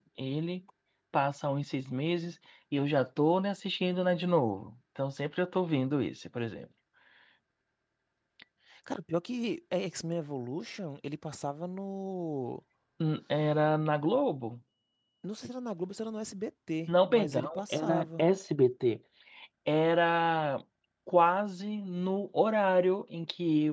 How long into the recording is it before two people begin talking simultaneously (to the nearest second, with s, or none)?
17 s